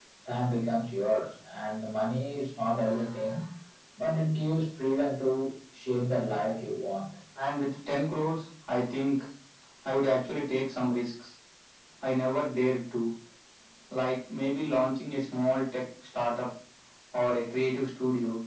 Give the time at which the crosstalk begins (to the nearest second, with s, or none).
none